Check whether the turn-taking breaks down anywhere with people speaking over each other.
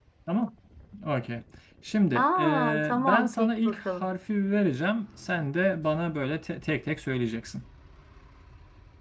Yes, from 2.1 s

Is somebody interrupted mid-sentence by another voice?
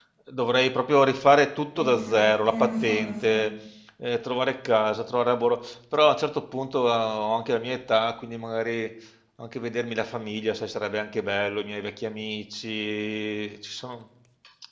Yes, from 1.7 s

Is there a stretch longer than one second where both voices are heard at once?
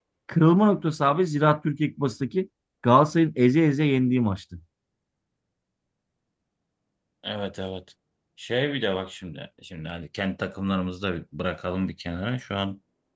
No

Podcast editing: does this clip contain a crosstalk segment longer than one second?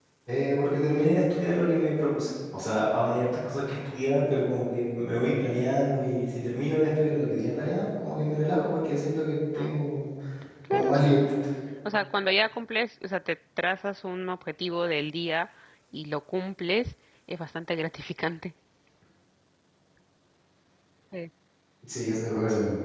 No

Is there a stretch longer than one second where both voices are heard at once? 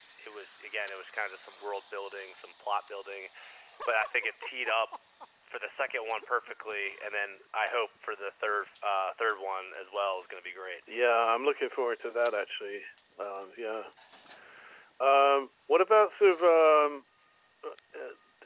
No

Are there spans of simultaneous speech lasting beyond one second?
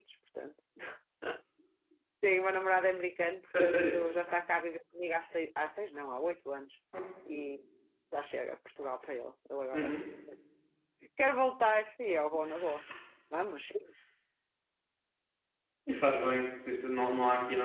No

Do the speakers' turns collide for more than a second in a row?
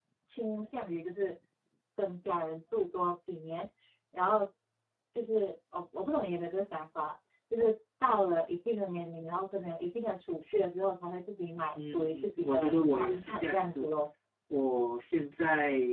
Yes, from 11.8 s

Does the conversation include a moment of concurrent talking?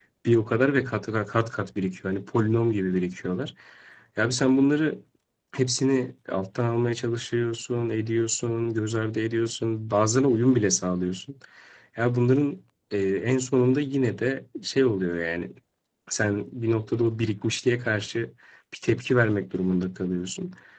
No

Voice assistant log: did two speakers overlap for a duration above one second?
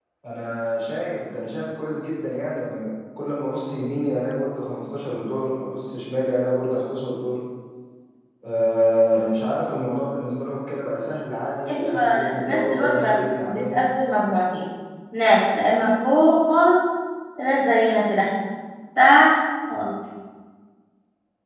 Yes, from 11.7 s

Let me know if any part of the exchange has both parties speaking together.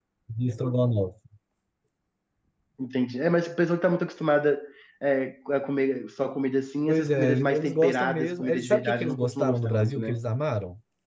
Yes, from 6.9 s

